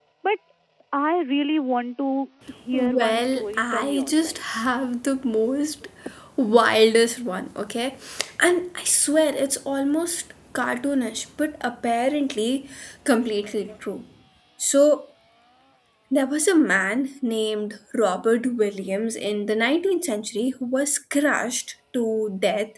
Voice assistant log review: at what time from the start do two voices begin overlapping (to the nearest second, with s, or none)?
3 s